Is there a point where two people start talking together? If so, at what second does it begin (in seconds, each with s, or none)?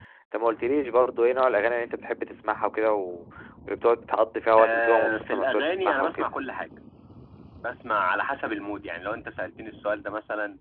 4.6 s